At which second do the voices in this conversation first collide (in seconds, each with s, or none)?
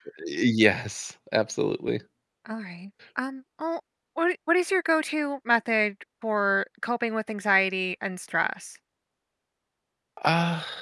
none